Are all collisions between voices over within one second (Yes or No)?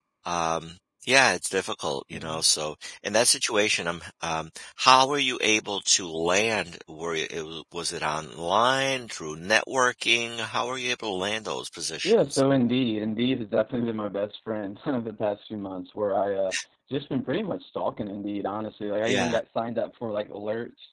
Yes